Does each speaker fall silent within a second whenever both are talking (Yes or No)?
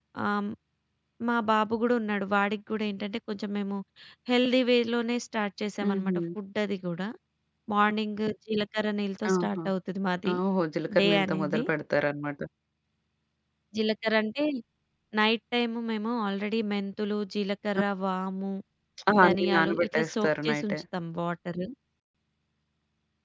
No